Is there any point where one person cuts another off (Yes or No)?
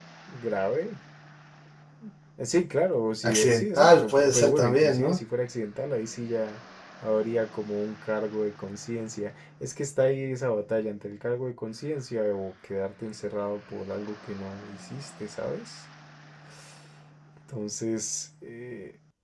Yes